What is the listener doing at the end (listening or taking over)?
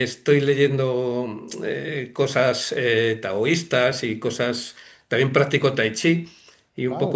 listening